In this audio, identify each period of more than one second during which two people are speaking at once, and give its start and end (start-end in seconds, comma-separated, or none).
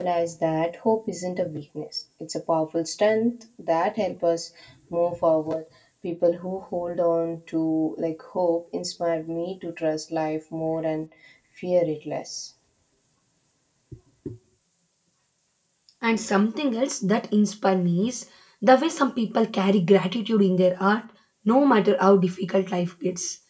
none